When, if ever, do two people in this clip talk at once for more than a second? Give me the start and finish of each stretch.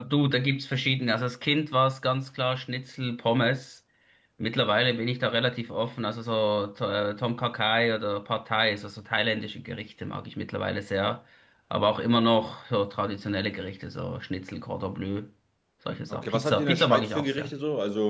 16.1-17.5

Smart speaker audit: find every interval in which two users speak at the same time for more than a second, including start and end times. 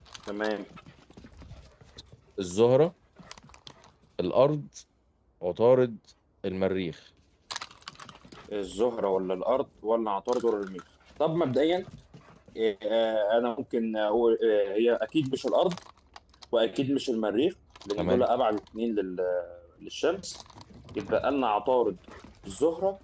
none

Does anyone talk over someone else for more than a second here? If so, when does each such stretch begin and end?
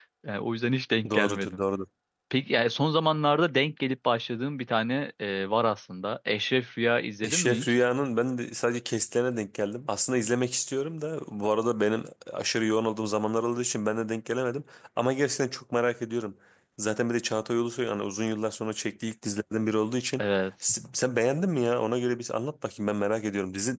none

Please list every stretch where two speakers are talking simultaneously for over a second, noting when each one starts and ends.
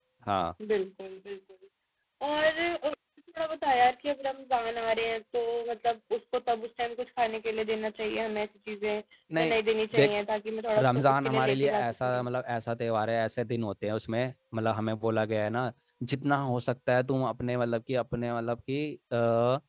10.8-12.3

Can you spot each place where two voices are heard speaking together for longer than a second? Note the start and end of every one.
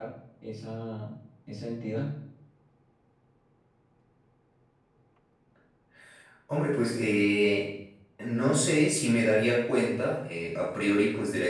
none

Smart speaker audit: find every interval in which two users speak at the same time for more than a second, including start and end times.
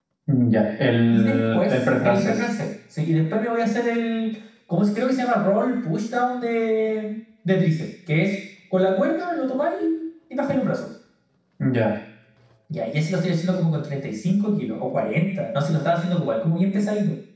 1.1-2.4

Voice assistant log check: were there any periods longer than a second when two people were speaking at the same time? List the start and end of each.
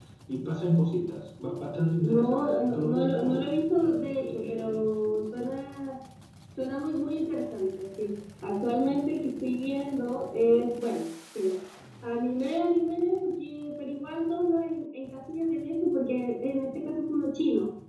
2.0-4.8

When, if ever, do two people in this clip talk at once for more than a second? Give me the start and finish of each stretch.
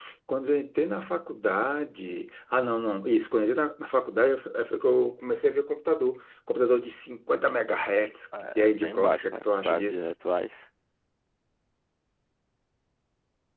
8.6-10.1

